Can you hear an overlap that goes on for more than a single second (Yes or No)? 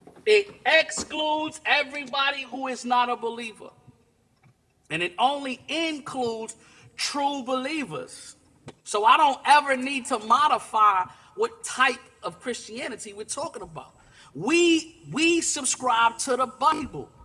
No